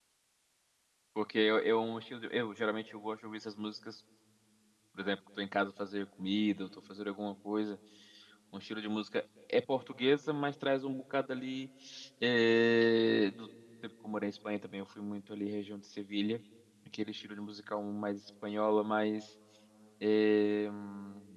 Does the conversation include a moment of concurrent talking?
No

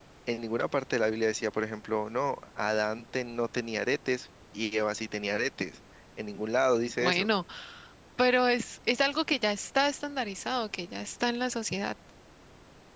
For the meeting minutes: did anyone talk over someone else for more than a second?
No

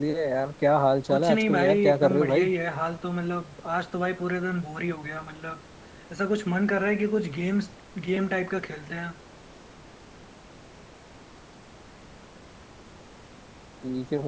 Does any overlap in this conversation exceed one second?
Yes, from 1.1 s

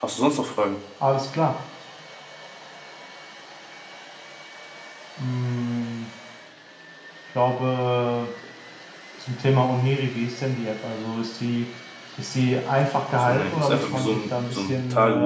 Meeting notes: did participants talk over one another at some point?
Yes, from 13.2 s

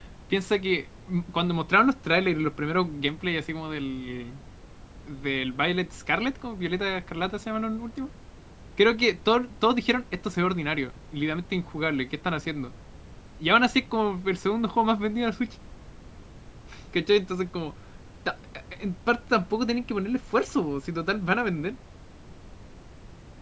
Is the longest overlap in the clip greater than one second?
No

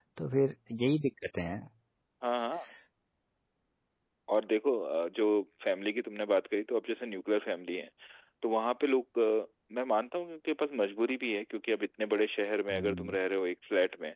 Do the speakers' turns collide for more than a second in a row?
No

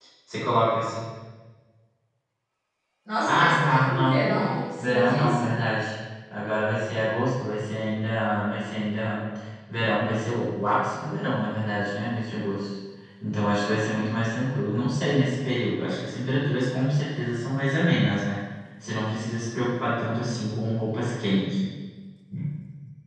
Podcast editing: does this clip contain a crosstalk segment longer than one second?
Yes, from 3.3 s

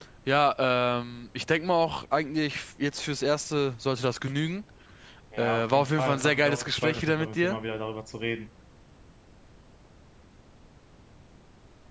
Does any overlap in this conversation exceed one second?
Yes, from 5.4 s

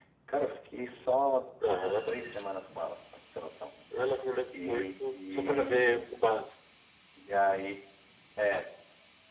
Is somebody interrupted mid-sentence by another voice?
Yes, from 4.7 s

